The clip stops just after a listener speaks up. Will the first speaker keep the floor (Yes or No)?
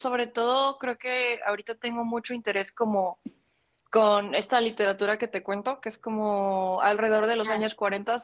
Yes